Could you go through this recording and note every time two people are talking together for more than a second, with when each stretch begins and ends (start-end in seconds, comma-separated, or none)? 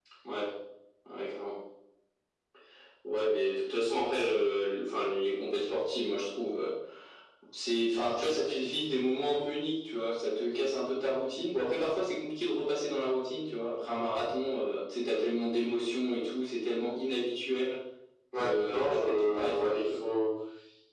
18.4-19.9